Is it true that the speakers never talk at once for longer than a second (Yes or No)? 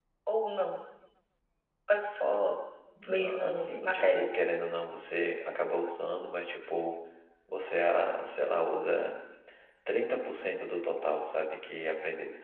No